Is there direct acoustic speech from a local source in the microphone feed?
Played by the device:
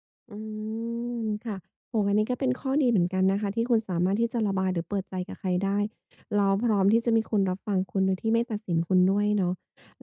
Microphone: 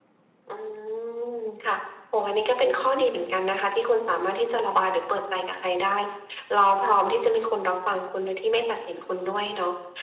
No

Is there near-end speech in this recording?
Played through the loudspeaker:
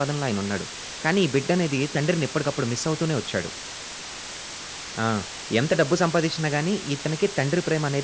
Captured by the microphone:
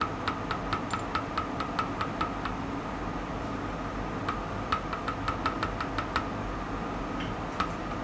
No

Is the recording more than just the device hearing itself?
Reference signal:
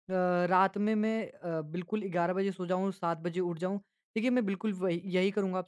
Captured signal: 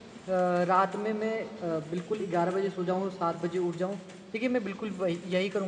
No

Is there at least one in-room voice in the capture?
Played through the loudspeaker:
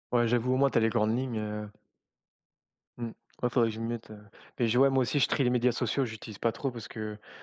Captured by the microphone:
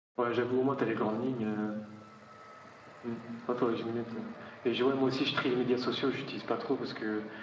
No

